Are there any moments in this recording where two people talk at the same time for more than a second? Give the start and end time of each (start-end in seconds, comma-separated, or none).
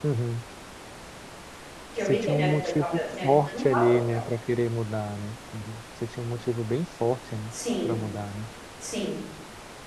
2.0-4.2